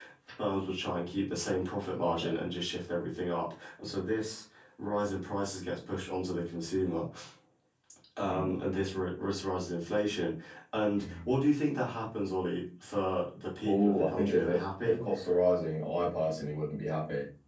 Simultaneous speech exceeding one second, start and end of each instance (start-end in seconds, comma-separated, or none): 13.7-15.0